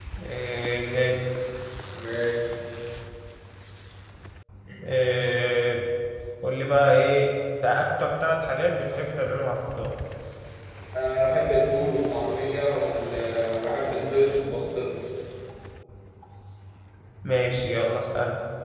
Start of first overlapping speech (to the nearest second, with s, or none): none